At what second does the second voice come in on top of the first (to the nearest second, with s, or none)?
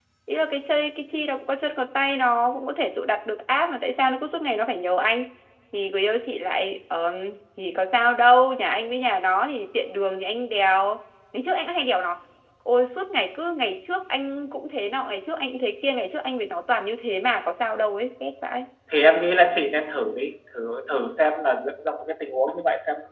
none